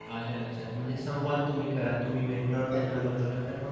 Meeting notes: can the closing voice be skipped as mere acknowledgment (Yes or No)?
Yes